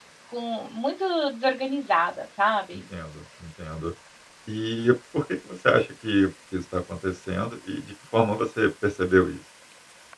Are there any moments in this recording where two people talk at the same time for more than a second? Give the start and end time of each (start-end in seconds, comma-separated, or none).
none